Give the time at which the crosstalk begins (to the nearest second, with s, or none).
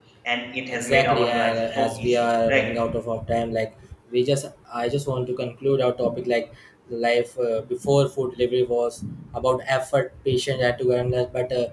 1 s